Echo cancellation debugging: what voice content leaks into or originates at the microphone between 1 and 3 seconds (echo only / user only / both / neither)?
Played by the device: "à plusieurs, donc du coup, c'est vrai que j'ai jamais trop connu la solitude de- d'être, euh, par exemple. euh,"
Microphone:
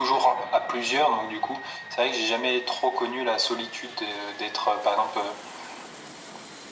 echo only